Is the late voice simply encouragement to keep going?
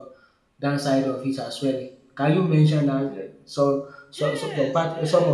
No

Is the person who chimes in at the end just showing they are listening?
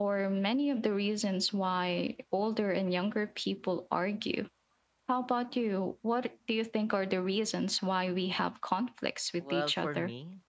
No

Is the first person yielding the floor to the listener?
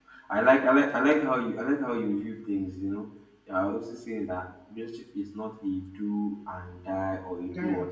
No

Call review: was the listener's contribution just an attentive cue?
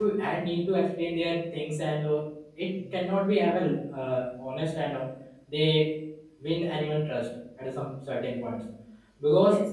No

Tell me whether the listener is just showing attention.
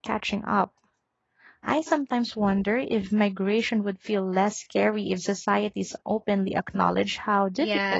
No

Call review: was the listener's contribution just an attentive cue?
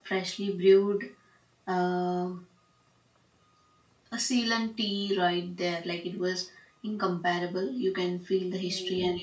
Yes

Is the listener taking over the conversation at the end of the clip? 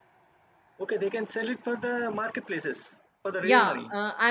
Yes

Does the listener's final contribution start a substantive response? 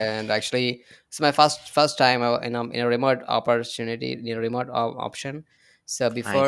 No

